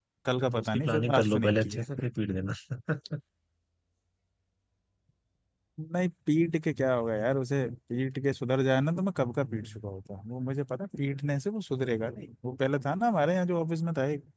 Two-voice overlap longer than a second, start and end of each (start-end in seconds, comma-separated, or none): 0.5-1.8